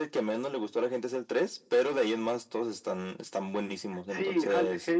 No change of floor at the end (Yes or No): No